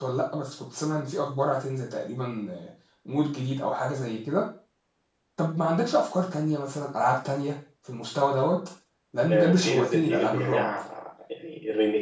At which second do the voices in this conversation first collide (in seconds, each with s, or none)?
9.3 s